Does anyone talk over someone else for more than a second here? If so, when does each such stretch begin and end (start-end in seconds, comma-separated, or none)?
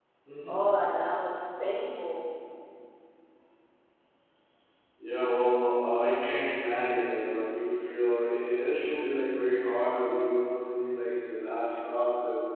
none